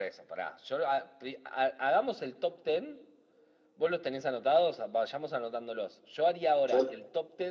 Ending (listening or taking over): listening